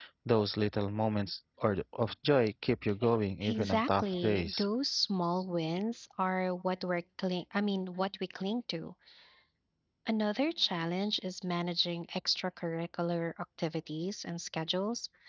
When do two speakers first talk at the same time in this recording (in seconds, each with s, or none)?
3.4 s